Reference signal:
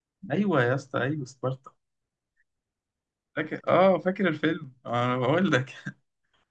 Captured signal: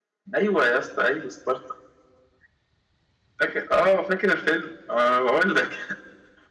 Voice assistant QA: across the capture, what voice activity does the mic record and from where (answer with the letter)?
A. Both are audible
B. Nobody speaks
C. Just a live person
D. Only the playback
D